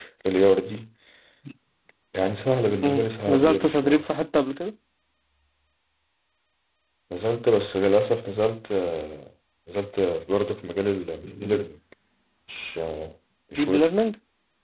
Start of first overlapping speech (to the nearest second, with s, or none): 3 s